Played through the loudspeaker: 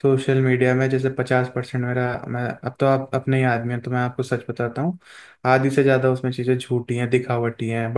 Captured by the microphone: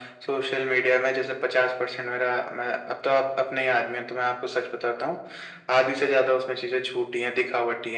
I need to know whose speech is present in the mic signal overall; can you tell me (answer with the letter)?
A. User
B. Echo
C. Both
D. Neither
B